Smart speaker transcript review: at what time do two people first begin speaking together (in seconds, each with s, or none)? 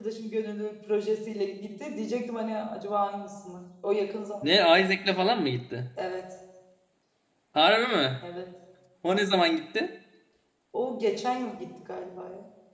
none